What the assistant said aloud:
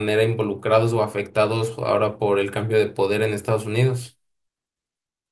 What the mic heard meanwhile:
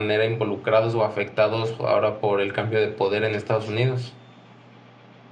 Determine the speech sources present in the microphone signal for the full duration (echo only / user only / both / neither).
echo only